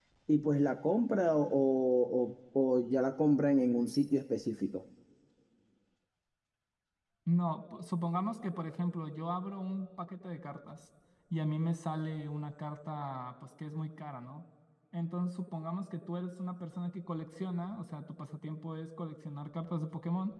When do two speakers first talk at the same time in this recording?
none

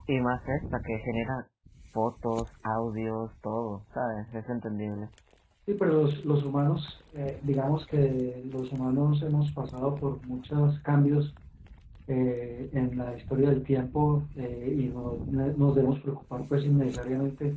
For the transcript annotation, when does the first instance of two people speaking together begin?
none

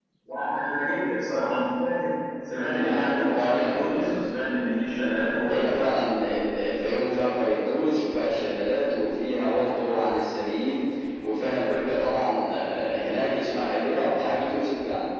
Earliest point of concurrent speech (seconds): 2.7 s

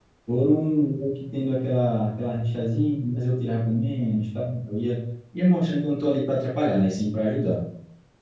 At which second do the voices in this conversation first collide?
none

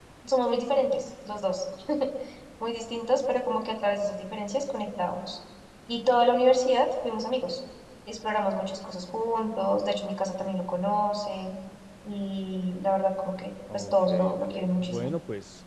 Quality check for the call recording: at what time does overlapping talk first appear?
13.7 s

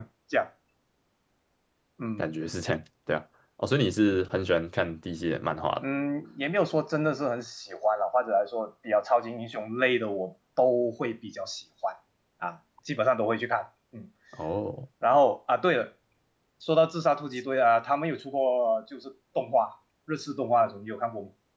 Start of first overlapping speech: none

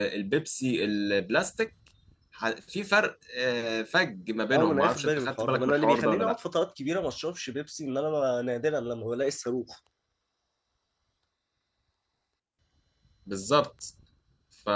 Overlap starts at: 4.5 s

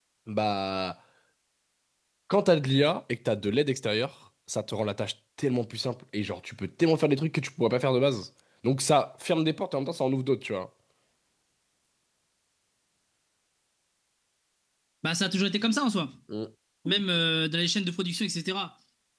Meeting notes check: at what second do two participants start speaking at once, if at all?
none

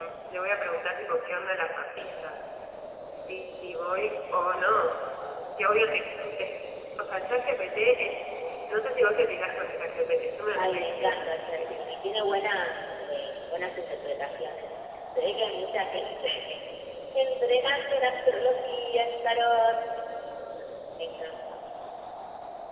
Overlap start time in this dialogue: 10.5 s

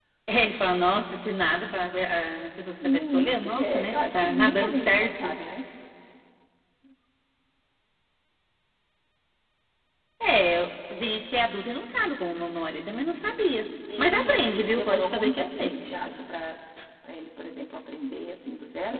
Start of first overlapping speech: 2.8 s

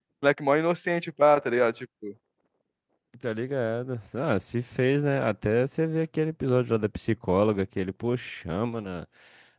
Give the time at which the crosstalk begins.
none

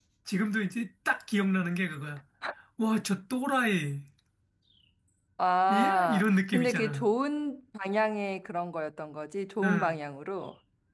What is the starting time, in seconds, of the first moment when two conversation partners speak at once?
5.7 s

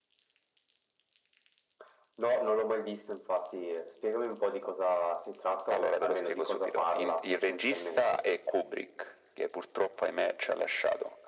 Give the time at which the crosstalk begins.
5.7 s

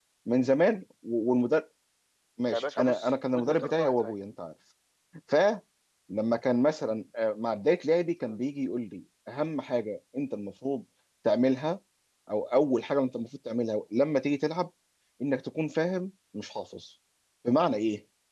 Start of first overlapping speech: 2.5 s

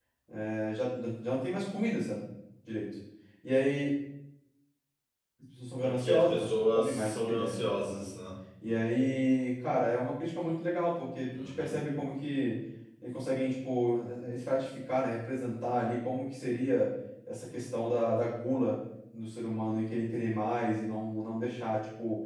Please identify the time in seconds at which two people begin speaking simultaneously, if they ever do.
5.8 s

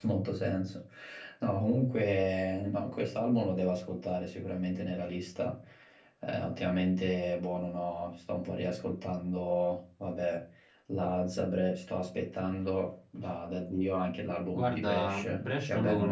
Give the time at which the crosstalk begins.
14.5 s

